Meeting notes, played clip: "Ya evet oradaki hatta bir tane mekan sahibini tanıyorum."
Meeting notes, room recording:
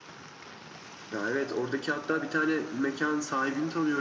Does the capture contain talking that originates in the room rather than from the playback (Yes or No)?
No